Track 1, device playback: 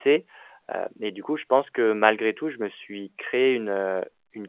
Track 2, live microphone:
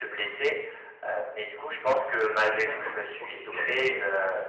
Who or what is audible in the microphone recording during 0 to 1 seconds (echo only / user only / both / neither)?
echo only